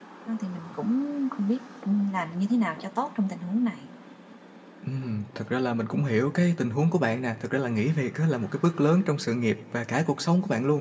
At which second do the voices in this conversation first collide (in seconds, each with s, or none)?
none